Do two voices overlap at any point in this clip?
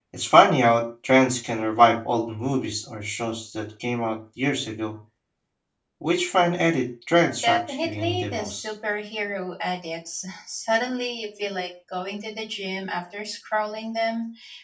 Yes, from 7.4 s

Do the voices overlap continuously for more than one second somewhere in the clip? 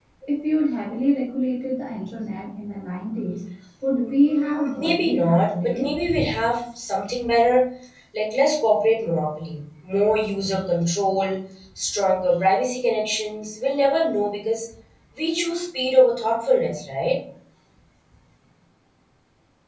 Yes, from 3.9 s

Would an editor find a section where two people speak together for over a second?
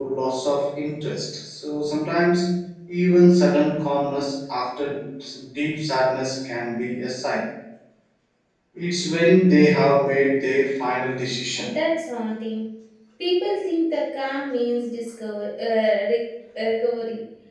No

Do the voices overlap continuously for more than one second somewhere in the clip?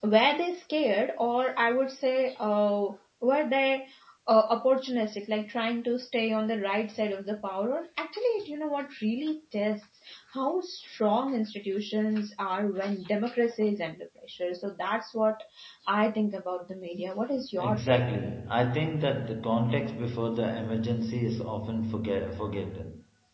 No

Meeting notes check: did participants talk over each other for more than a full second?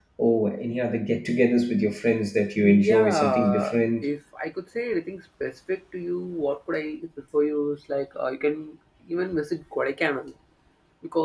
Yes, from 2.6 s

